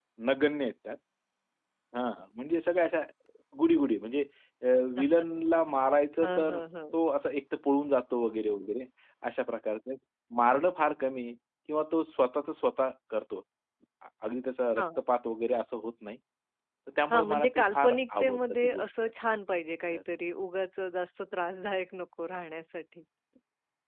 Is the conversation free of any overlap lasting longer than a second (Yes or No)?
No